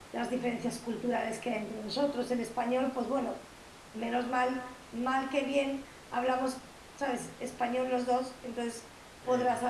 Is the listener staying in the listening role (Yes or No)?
Yes